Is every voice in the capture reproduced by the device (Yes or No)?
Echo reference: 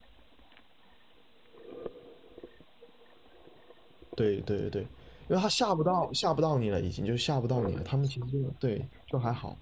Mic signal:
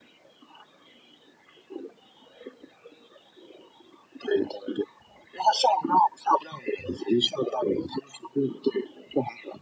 Yes